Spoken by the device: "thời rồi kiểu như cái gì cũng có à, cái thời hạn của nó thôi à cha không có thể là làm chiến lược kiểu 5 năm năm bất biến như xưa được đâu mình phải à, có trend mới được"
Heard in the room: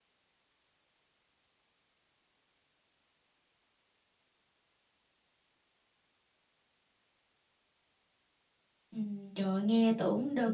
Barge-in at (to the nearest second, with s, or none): 9 s